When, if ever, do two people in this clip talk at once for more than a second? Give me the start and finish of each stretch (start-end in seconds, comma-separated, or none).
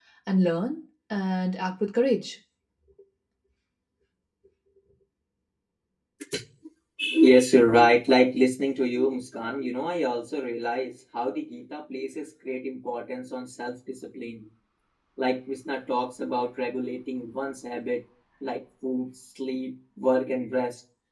none